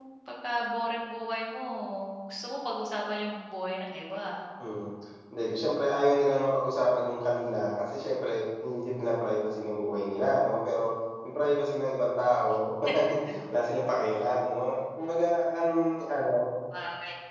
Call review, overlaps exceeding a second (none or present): none